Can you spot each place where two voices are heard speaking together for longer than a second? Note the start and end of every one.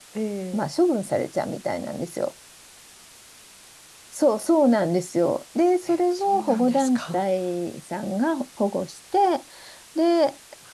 5.9-7.2

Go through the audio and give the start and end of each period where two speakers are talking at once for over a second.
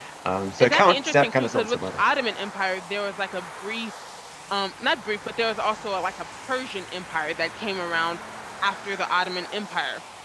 0.6-2.0

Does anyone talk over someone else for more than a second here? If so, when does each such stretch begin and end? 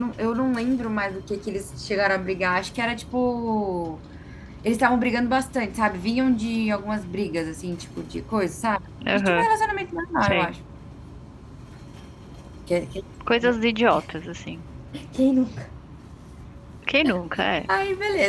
none

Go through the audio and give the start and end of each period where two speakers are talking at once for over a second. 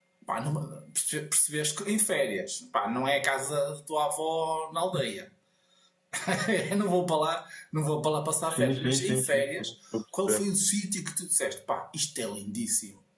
8.4-9.7

